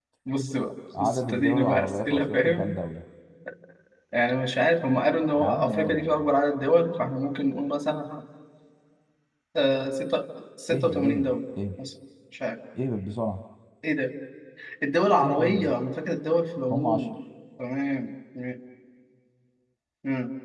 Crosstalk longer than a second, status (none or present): present